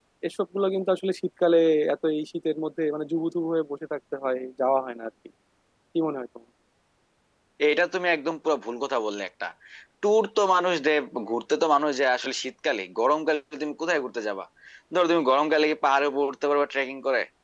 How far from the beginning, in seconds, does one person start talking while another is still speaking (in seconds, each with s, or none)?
none